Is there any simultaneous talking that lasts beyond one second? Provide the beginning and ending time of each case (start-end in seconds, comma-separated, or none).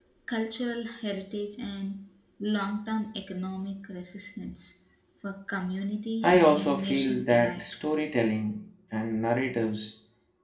6.2-7.6